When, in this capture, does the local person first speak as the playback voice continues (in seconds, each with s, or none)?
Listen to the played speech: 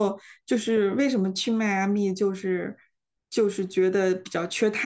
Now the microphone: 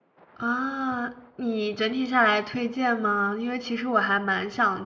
0.3 s